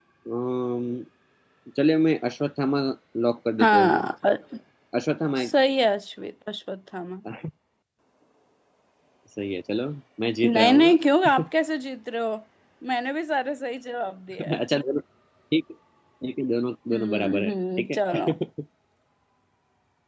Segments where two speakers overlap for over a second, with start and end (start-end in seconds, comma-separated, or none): 16.9-18.2